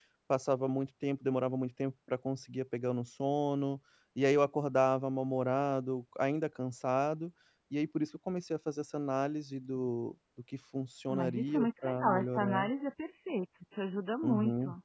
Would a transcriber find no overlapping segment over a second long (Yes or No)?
No